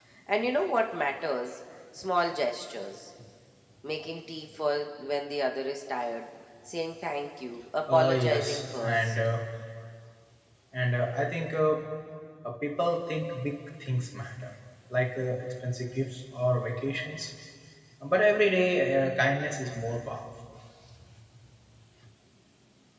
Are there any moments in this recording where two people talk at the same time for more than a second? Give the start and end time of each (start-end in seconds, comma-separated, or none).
7.9-9.2